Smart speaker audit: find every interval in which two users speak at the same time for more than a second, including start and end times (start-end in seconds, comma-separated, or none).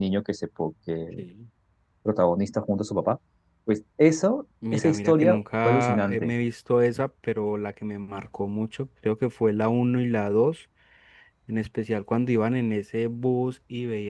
4.7-6.3